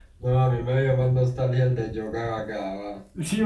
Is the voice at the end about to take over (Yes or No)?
No